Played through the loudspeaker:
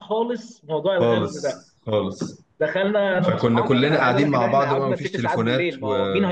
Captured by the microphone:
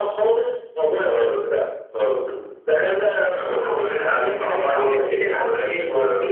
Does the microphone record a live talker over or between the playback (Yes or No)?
Yes